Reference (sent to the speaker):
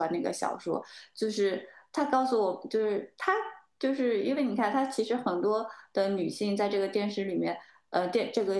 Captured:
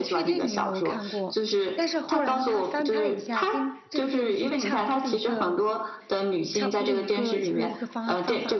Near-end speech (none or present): present